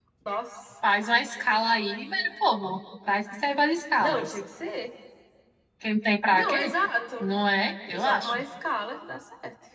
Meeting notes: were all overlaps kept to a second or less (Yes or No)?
Yes